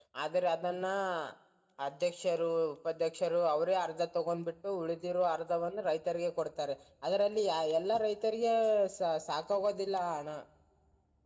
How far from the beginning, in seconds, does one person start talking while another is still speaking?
none

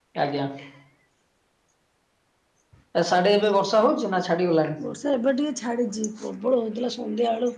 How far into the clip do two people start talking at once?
none

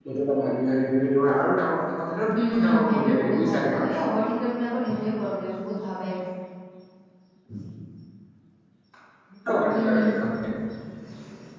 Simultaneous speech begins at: 2.5 s

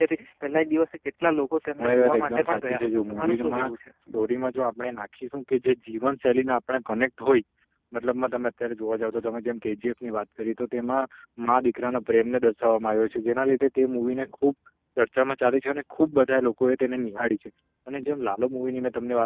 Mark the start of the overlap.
1.8 s

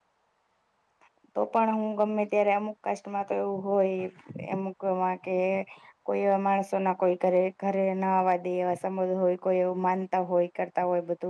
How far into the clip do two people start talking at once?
none

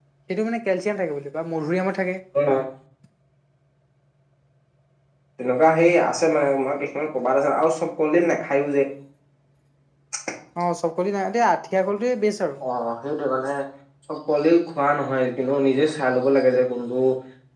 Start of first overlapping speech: none

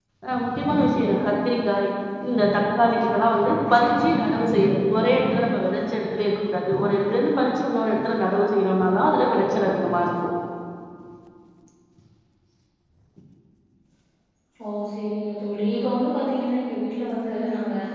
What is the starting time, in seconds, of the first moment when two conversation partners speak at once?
none

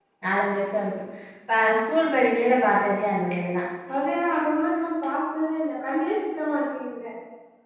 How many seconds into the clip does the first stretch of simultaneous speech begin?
none

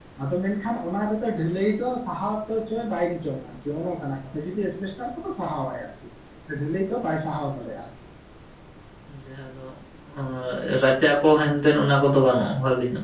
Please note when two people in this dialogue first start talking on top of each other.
none

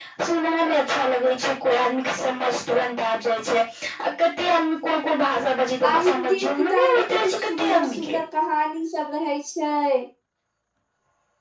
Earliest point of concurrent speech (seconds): 5.8 s

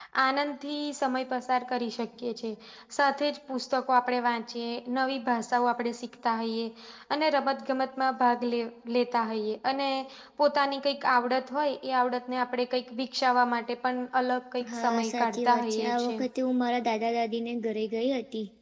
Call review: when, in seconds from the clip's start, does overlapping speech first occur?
14.6 s

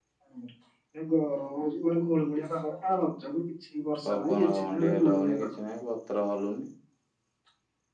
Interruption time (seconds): 4.0 s

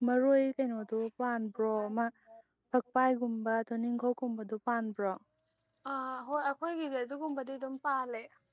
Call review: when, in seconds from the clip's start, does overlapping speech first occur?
none

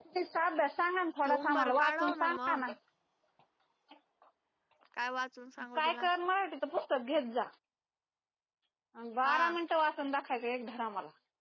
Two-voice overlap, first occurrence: 1.2 s

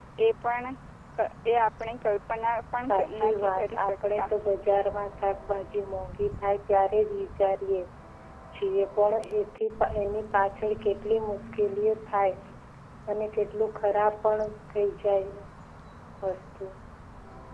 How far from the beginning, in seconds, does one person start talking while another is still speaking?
2.8 s

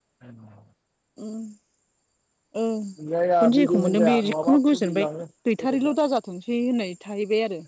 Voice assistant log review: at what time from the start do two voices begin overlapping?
3.4 s

